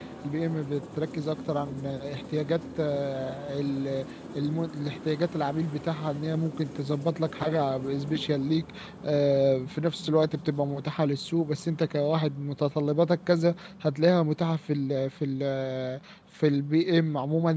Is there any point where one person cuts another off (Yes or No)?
No